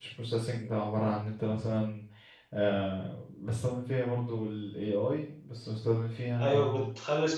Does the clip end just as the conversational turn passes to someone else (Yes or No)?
Yes